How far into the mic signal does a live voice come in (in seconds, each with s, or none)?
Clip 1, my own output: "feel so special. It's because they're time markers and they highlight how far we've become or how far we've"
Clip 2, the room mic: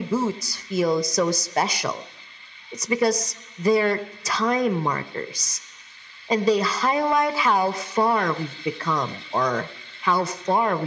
none